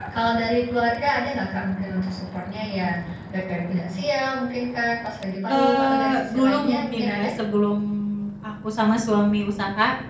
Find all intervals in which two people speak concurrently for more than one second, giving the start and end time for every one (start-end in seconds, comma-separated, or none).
5.5-7.3